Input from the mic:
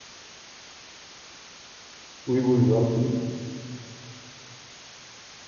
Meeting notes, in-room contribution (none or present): present